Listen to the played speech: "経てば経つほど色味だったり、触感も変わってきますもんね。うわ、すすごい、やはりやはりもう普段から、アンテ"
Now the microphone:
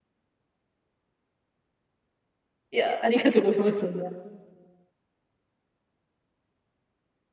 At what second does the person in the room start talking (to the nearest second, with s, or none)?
3 s